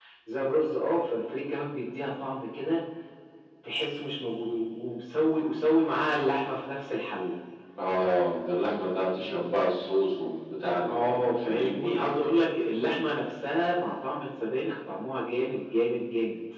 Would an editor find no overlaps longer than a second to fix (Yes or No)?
No